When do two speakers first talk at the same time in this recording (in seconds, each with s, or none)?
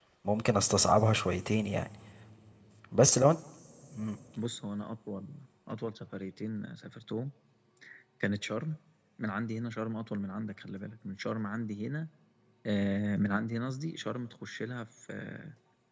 none